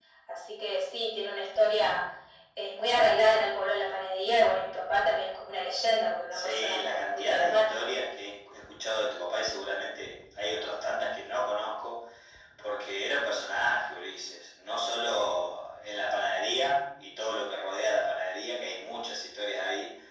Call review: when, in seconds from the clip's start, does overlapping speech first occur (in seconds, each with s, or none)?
6.3 s